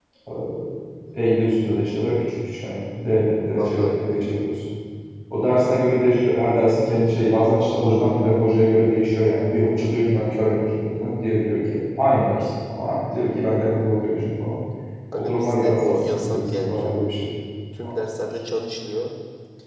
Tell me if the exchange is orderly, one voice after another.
No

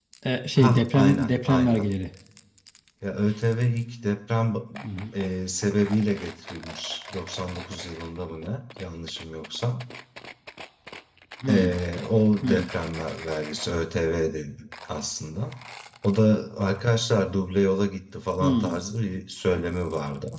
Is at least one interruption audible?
Yes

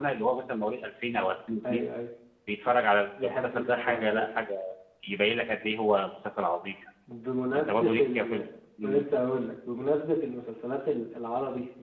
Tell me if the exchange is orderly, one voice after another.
No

